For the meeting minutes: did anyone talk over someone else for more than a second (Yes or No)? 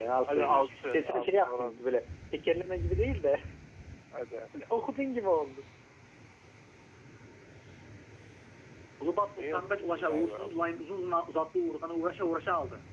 Yes